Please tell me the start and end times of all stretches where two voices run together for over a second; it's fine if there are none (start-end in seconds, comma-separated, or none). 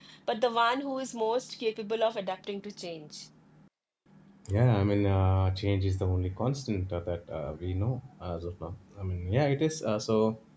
none